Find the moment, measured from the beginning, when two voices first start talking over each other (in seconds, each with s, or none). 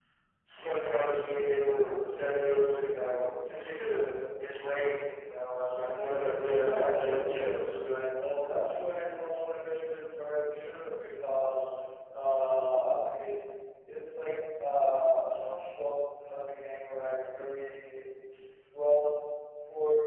5.7 s